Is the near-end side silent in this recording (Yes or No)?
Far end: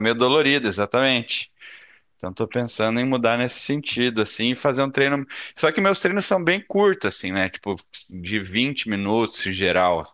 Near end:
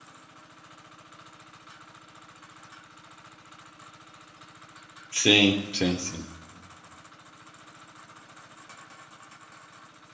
No